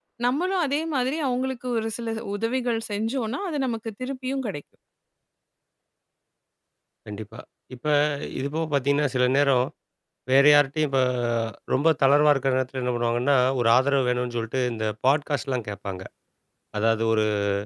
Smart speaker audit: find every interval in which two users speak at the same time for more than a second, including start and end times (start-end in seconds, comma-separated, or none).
none